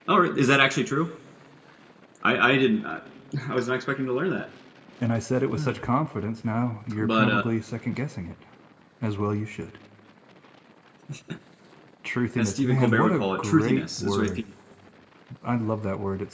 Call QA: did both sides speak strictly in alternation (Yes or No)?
No